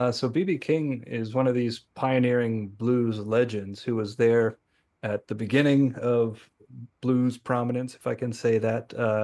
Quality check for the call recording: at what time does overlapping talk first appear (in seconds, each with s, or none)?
none